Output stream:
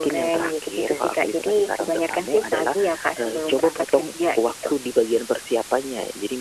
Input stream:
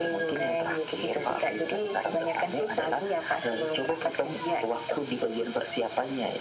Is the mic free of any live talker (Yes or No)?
Yes